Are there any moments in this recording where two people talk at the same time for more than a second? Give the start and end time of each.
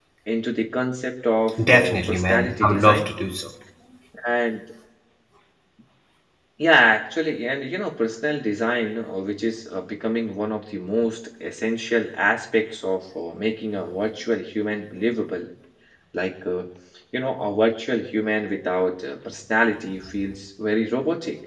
1.7-3.1

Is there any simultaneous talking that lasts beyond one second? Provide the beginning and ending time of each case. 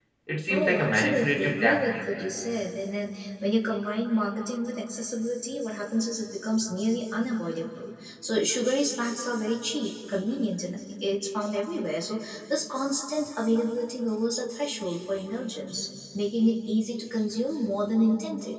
0.5-2.0

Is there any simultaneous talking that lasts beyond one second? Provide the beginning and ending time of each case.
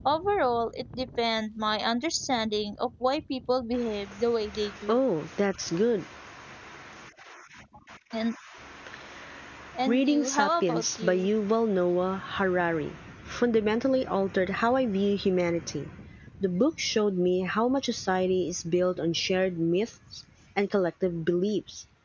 9.9-11.3

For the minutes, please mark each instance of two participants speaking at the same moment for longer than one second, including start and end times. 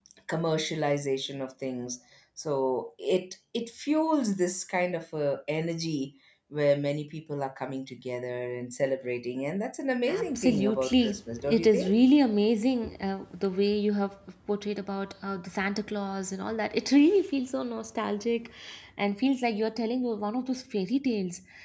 10.1-12.0

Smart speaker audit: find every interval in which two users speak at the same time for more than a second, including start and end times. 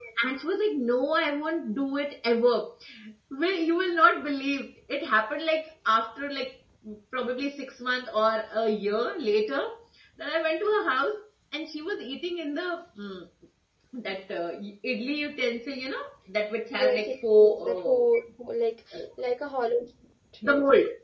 16.8-18.2

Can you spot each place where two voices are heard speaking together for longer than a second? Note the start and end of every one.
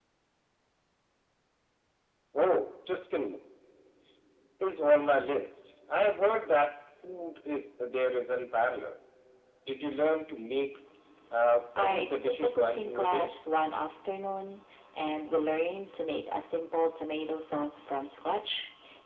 11.8-13.3

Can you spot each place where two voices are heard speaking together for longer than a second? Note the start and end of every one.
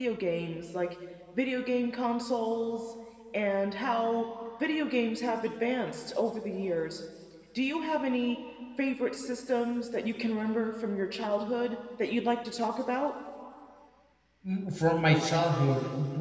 none

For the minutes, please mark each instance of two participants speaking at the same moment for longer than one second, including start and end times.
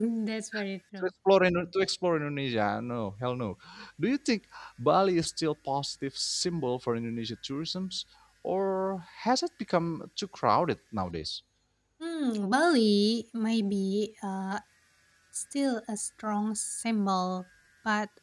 none

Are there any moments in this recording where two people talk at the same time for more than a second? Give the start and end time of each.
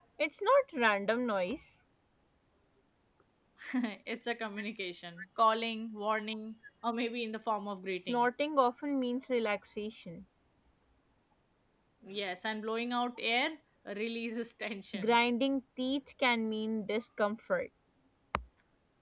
none

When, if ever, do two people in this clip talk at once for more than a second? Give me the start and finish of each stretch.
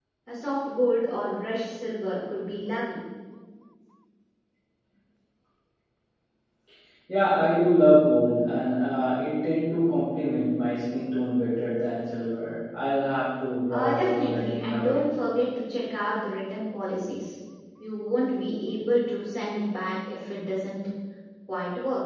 13.7-15.0

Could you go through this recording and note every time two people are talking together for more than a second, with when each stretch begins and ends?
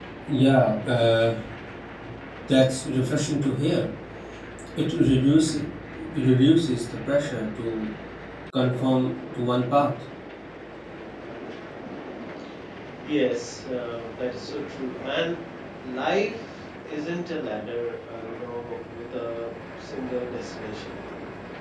none

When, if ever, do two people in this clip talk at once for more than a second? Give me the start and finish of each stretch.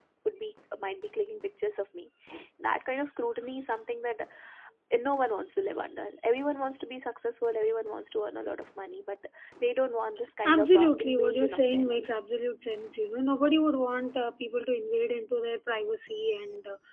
10.4-12.1

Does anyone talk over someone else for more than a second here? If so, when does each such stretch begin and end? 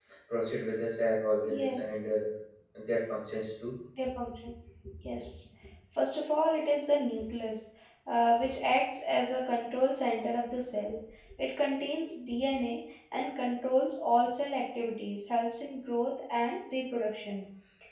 none

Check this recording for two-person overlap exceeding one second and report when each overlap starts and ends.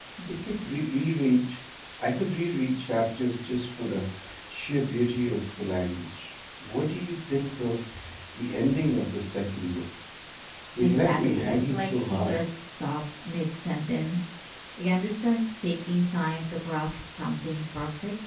10.8-12.3

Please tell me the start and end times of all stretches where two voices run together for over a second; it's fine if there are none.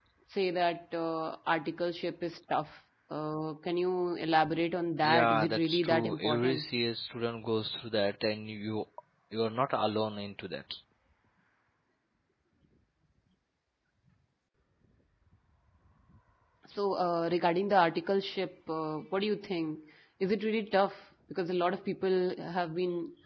5.0-6.6

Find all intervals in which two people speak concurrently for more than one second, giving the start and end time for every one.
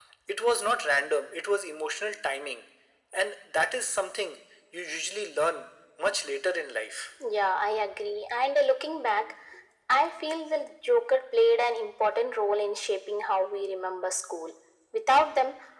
none

